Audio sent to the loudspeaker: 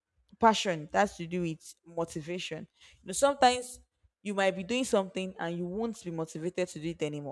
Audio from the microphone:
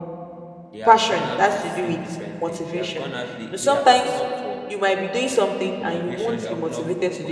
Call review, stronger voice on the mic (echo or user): echo